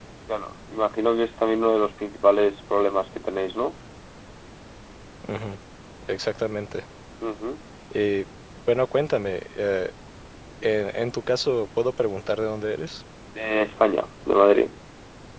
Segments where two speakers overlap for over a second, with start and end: none

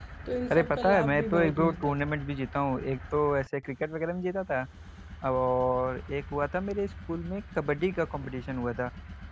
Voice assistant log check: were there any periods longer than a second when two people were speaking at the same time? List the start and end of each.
0.5-2.1

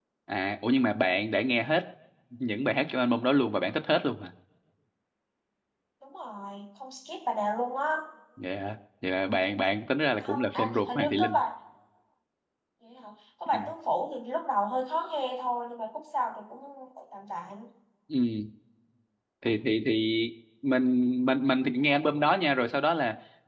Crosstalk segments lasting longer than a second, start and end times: 10.2-11.4

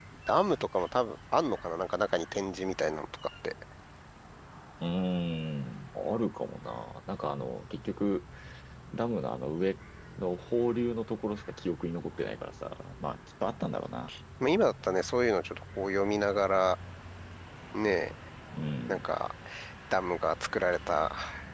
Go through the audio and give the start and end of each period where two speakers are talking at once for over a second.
none

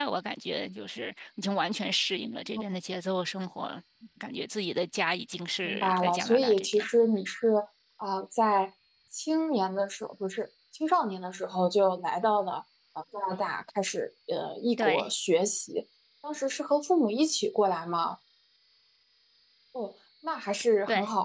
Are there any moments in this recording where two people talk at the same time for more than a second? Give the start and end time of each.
5.6-6.9

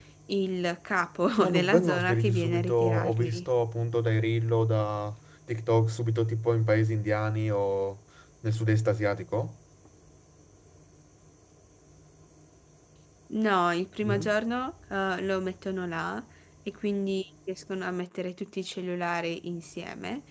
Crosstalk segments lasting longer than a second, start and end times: 1.4-3.5

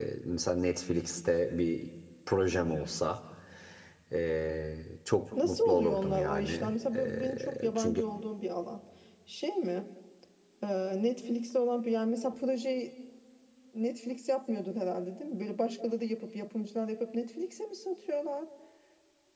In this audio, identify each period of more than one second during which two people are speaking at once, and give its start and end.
5.4-8.0

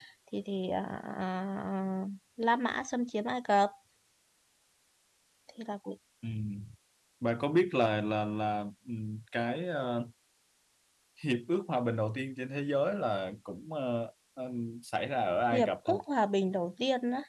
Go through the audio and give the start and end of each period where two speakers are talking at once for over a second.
none

